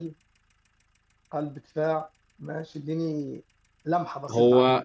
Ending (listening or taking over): taking over